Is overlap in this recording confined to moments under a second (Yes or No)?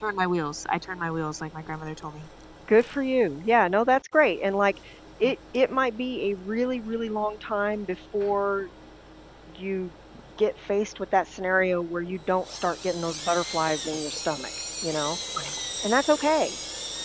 Yes